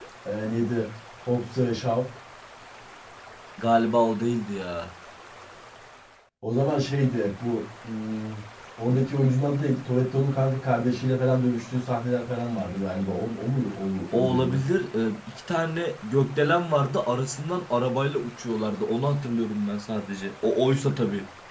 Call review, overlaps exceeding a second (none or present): none